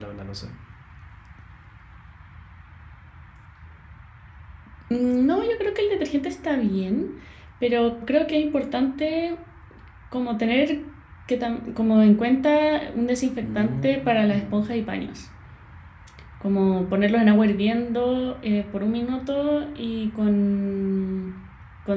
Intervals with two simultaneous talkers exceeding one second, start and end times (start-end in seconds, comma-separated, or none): 13.4-14.7